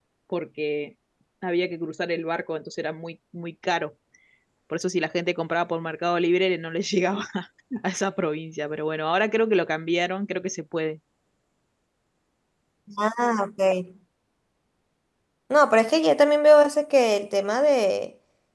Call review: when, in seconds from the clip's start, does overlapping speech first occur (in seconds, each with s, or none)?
none